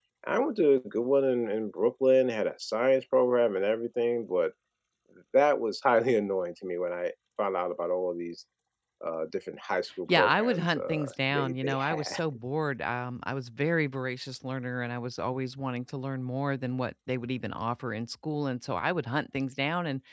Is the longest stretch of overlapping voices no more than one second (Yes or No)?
No